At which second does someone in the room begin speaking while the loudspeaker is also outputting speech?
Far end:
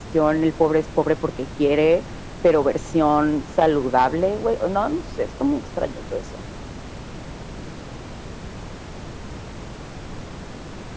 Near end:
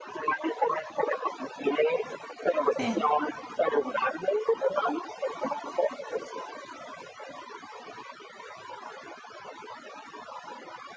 3 s

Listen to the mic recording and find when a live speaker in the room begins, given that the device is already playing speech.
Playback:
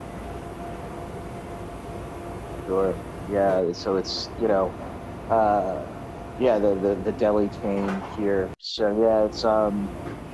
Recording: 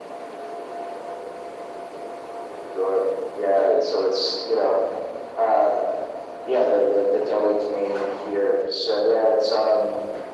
none

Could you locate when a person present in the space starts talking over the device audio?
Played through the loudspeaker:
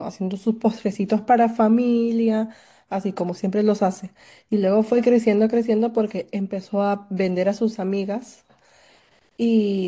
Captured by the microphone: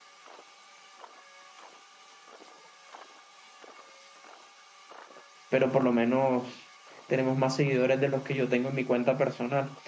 5 s

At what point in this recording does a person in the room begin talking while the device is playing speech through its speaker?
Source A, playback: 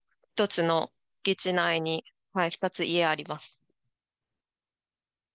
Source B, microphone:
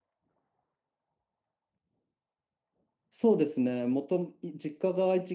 3 s

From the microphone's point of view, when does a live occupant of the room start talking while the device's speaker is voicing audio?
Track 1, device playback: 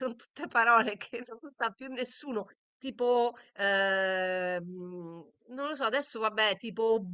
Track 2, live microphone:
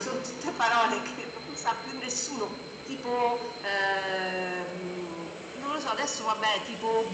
none

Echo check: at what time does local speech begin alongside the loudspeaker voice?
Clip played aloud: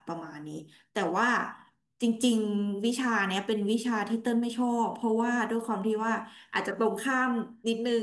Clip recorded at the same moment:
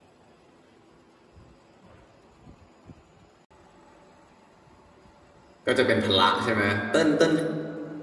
6 s

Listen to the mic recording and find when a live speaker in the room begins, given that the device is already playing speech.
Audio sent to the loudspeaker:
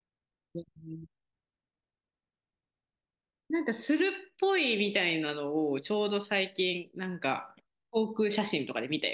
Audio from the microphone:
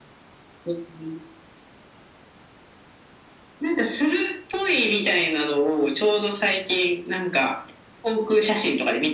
none

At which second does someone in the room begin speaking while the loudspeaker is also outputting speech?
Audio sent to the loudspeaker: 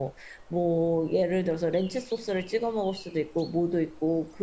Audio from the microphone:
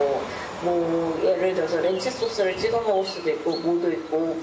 none

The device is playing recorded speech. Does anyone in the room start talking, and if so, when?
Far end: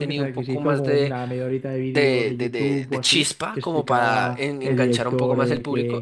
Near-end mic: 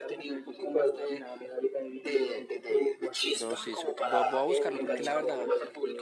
3 s

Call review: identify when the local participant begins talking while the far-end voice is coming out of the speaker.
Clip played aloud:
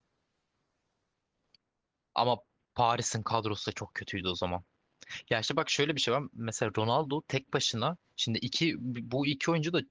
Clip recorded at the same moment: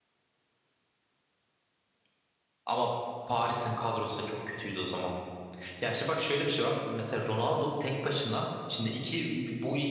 none

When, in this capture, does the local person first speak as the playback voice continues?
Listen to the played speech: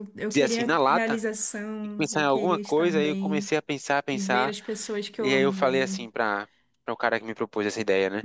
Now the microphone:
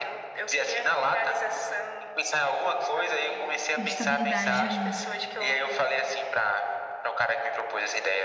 4 s

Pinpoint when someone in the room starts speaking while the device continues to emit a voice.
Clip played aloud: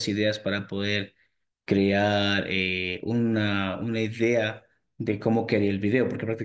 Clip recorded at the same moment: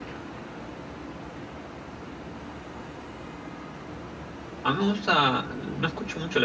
5 s

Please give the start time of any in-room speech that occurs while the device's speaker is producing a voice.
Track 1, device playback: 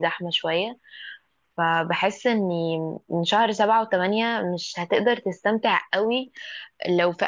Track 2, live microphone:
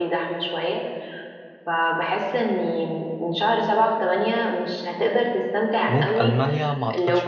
6 s

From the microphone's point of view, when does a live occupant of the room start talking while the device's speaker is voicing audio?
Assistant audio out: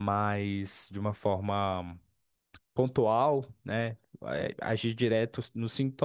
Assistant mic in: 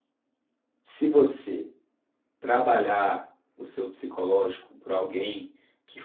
1 s

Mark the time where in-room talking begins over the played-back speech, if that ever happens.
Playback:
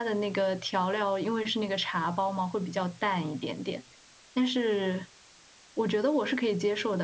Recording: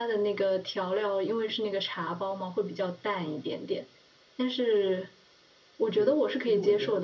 6 s

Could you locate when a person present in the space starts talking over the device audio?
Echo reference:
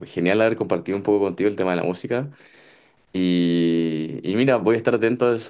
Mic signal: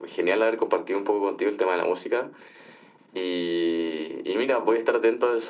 none

